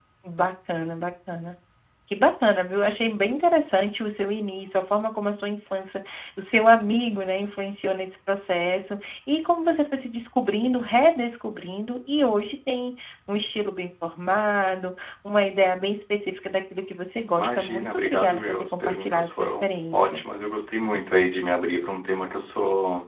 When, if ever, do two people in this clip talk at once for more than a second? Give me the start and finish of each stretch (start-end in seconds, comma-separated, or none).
17.4-20.2